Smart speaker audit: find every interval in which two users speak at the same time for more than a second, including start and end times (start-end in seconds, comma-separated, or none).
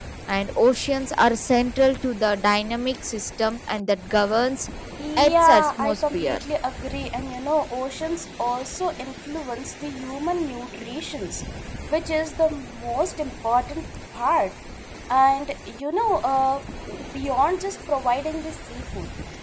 5.2-6.4